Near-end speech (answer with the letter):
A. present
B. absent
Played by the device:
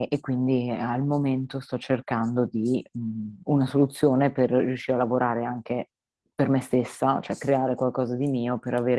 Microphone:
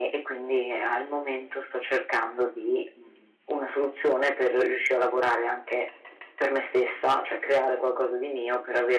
B